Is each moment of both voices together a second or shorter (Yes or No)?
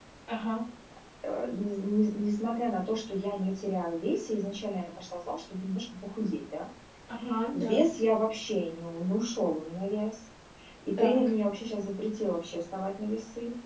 Yes